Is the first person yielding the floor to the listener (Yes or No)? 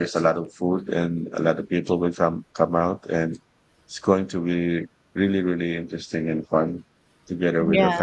No